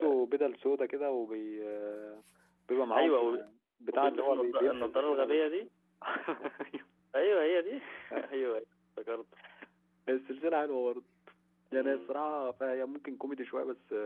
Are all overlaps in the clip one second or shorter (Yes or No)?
No